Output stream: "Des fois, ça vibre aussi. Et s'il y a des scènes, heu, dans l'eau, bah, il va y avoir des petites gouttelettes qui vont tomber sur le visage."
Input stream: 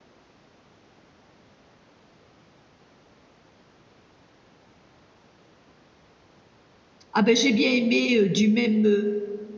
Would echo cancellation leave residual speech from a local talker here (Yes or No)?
Yes